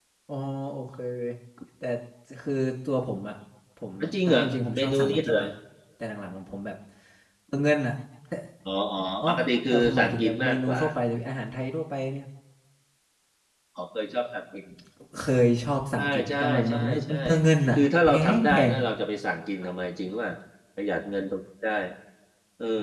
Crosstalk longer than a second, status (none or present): present